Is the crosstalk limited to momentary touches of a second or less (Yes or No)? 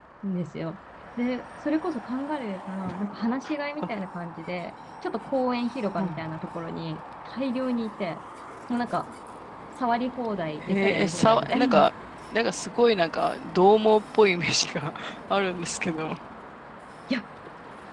No